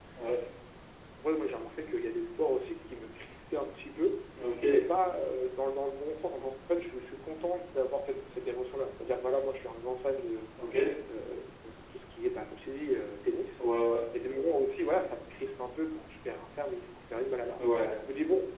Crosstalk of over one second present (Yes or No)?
No